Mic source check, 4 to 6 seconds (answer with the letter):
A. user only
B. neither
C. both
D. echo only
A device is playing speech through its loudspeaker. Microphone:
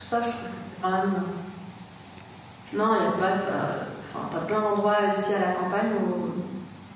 A